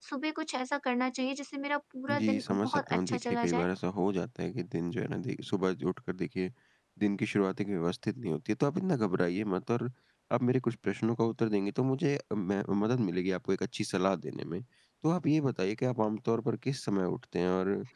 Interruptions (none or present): present